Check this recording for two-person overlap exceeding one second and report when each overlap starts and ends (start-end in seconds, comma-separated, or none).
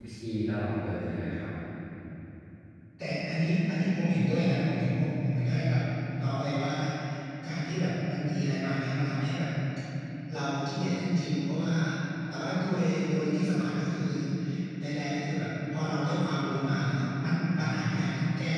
none